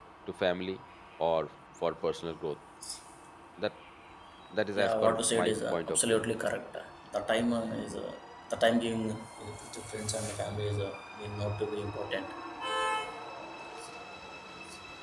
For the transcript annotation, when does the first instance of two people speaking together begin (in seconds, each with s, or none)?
4.8 s